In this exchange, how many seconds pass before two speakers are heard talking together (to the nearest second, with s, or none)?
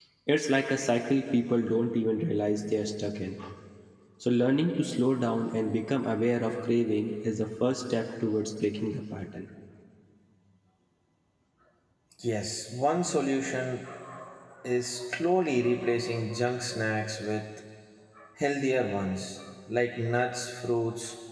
none